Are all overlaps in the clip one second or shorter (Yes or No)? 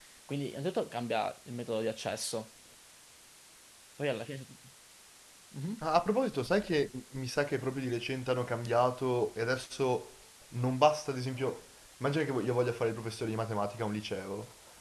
Yes